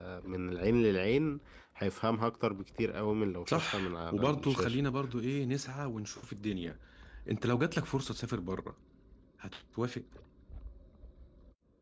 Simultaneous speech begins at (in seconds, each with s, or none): 3.5 s